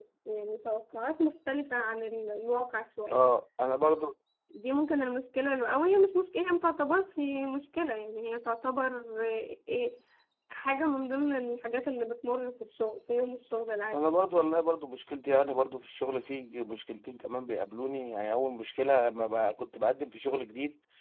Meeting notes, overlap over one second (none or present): none